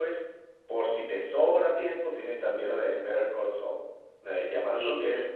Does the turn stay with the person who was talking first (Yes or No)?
Yes